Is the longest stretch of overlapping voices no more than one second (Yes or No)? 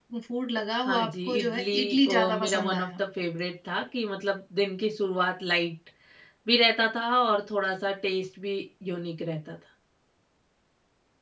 No